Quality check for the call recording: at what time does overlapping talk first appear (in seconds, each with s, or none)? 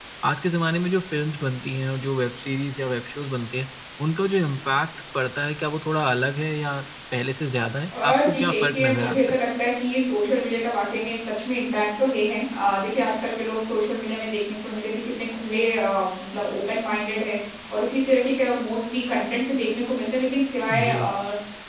8.0 s